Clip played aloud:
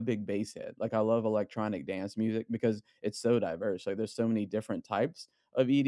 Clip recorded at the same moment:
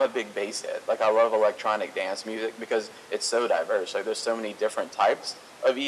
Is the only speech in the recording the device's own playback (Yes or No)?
Yes